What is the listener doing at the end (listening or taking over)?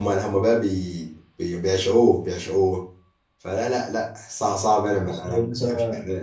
listening